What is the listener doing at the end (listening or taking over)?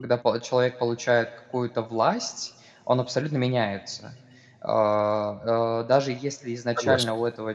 listening